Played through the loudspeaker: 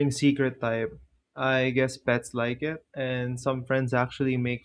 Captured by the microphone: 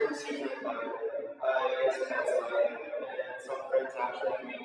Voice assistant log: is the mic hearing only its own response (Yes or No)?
Yes